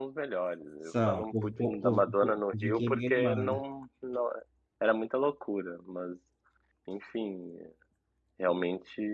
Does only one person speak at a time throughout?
No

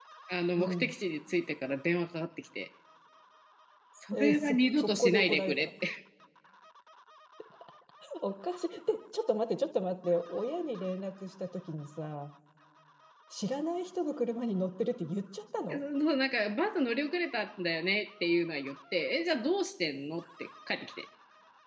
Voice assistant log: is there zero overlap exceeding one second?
No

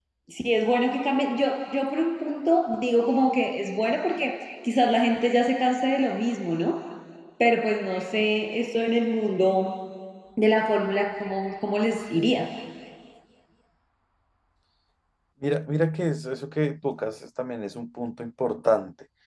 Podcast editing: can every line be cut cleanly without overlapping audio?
Yes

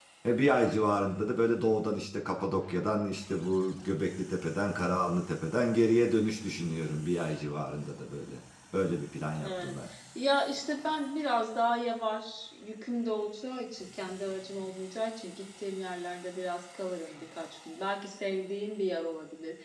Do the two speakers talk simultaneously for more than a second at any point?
No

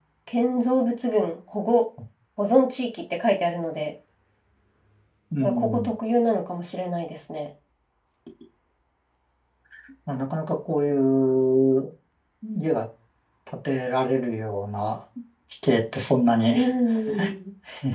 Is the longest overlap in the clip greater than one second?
No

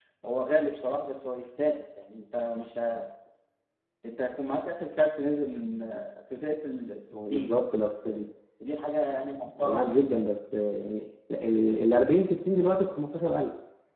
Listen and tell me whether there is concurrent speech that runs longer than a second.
No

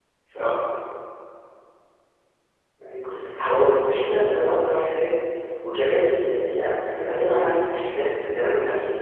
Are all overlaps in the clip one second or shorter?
No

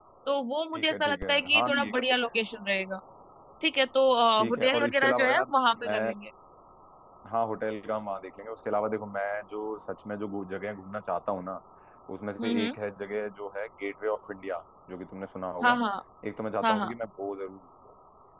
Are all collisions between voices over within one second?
No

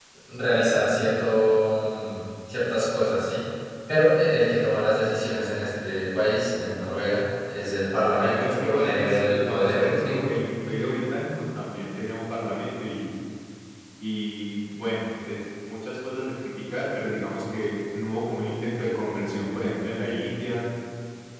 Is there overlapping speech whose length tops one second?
Yes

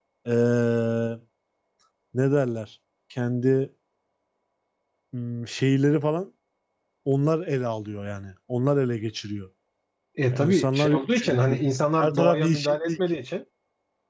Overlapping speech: Yes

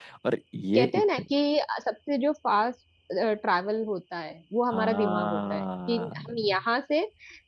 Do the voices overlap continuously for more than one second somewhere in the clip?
Yes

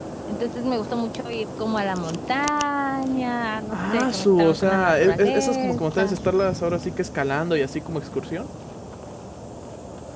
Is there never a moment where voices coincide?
No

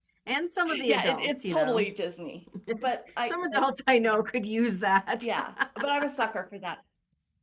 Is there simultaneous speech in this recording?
Yes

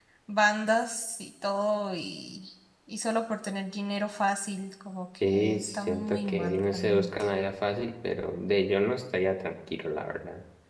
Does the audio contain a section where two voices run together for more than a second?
Yes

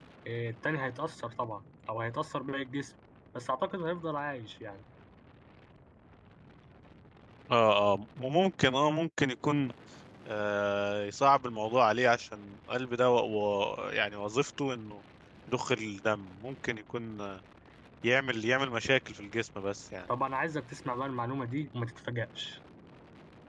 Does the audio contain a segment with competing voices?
No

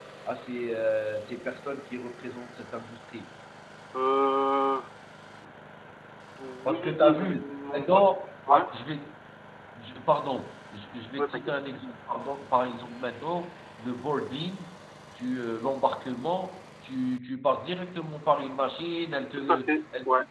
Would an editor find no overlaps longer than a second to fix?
No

